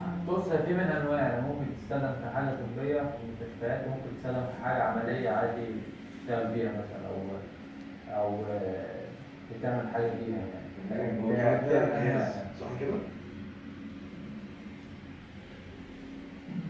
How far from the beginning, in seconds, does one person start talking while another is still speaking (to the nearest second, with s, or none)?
11 s